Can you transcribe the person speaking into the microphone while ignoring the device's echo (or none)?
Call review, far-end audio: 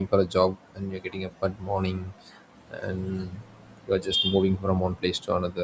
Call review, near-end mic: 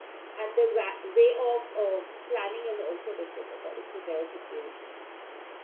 and their wa- way of uh, planning is also different according to their situations